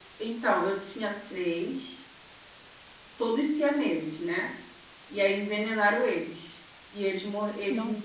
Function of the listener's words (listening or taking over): listening